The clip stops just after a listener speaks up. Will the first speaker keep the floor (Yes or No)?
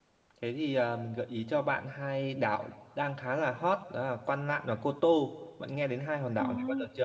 No